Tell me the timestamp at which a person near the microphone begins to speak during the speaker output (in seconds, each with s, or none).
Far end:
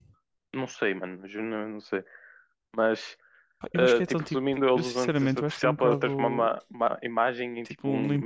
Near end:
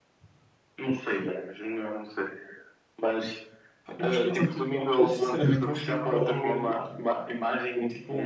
none